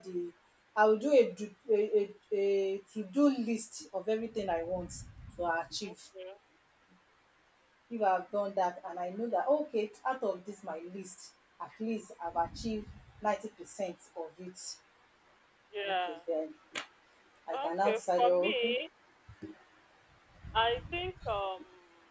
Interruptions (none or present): present